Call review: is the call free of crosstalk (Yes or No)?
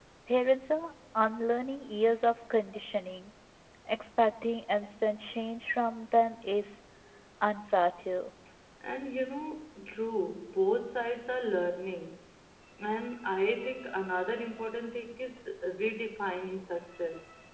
Yes